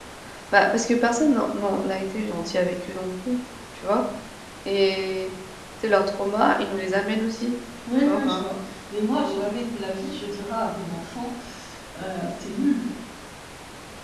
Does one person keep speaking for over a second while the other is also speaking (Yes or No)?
No